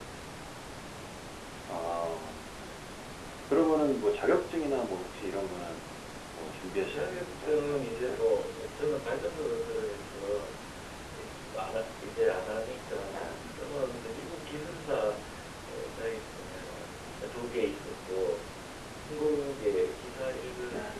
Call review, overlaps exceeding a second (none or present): present